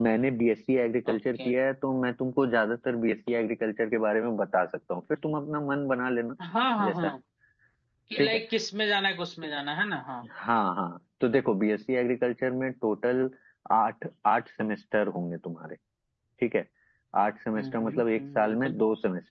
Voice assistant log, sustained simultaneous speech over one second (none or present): present